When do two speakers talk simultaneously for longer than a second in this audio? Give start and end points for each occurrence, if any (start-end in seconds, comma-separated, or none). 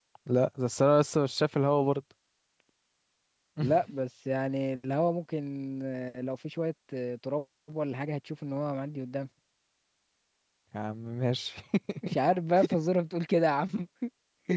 none